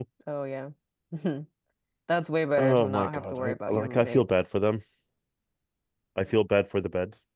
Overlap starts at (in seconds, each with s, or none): 2.6 s